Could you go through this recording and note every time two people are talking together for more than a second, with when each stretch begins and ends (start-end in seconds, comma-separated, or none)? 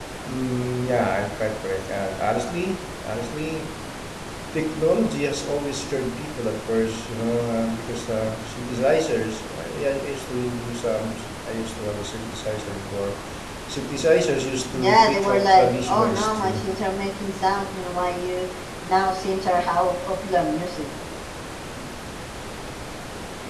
14.8-16.6